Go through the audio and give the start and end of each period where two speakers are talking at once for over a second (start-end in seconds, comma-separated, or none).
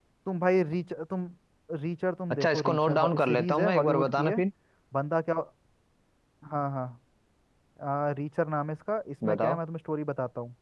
2.3-4.4